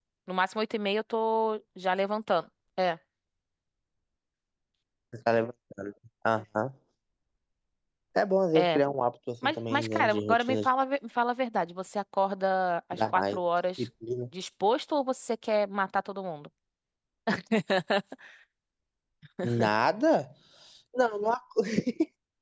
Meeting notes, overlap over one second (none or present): present